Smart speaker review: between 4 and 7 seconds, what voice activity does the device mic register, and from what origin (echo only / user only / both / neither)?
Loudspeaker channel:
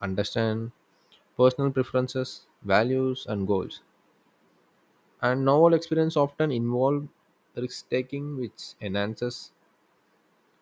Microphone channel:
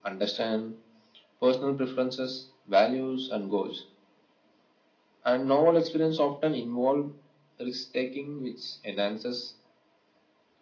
echo only